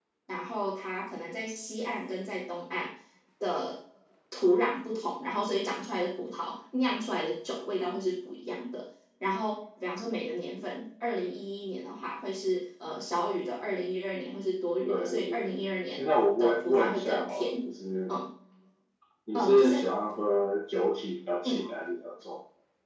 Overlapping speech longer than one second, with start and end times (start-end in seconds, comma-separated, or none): 16.0-17.5